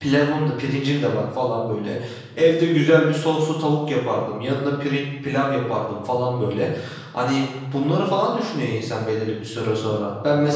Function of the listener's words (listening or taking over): listening